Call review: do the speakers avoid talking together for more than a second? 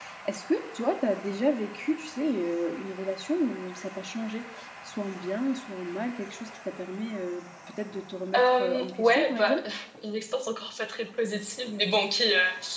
No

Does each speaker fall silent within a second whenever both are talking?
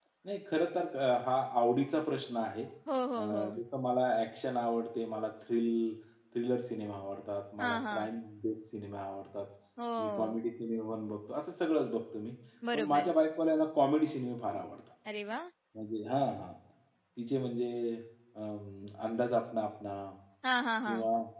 Yes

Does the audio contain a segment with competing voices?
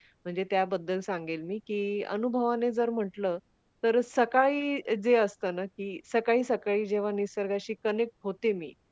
No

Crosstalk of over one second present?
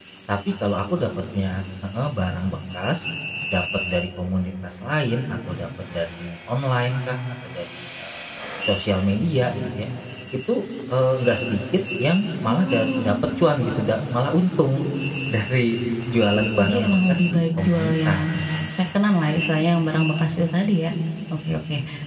Yes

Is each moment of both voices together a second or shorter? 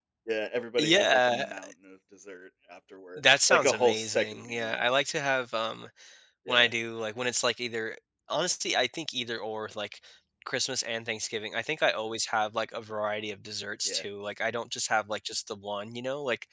No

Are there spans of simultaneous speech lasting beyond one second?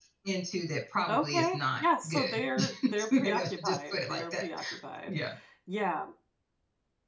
Yes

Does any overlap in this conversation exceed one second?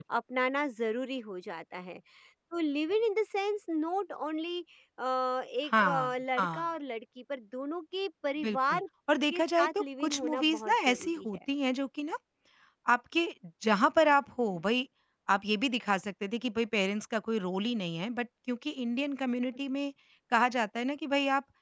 Yes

